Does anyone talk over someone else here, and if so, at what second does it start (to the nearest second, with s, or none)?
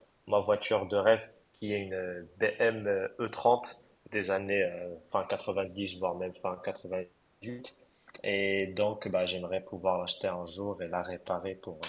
none